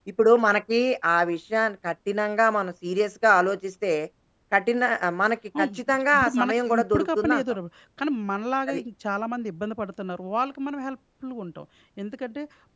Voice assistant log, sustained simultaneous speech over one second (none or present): present